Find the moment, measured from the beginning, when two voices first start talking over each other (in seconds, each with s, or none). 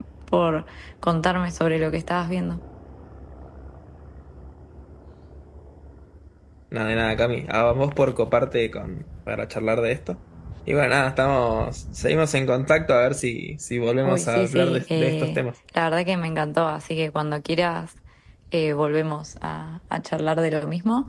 14.1 s